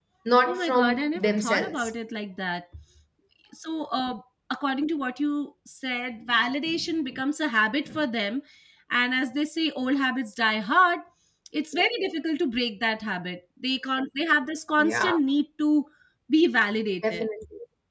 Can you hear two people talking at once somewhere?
Yes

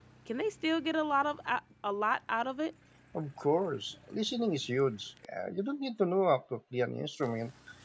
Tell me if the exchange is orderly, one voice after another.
Yes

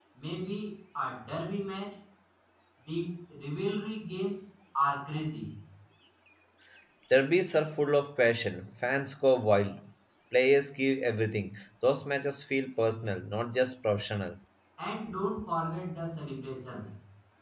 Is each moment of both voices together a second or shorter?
Yes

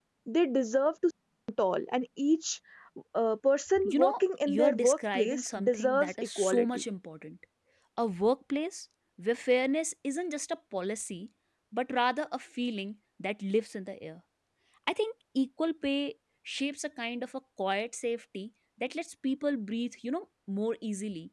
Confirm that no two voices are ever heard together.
No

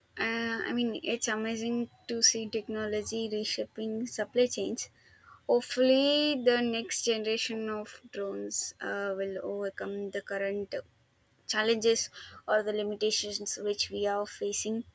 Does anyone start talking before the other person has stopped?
No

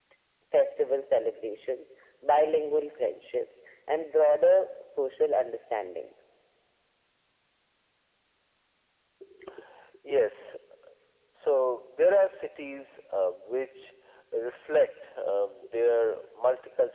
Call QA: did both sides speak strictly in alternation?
Yes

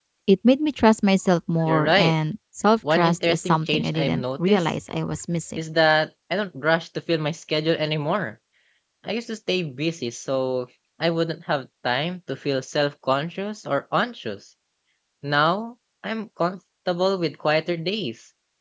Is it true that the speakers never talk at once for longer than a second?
No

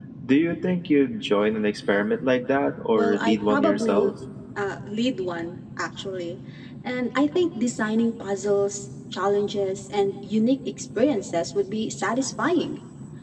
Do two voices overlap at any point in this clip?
Yes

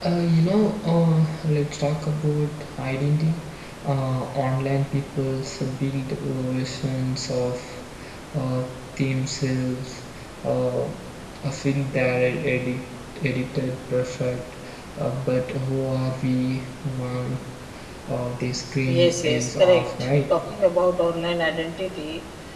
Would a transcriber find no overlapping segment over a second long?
No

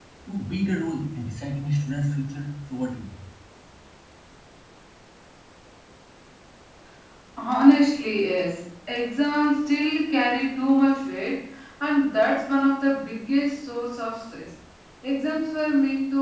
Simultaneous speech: No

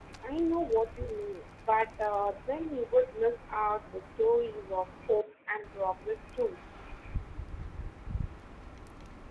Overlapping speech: No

